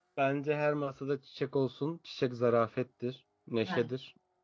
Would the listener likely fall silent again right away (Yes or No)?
Yes